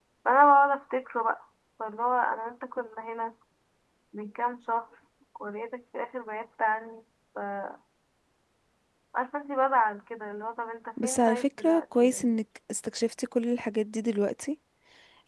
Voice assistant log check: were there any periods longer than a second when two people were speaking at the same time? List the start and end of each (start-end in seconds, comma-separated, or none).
11.0-12.3